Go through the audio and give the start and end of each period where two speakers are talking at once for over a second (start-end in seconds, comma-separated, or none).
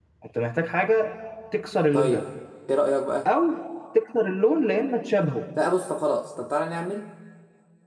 none